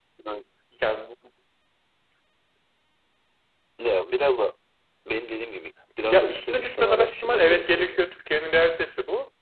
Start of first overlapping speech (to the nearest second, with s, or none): 6 s